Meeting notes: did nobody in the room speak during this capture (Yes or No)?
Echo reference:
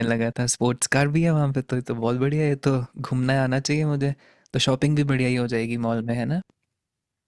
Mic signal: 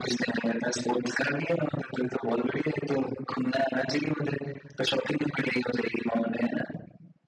Yes